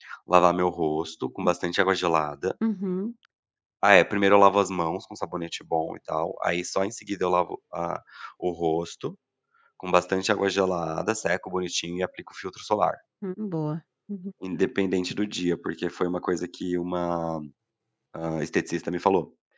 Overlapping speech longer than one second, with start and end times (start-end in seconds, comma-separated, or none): none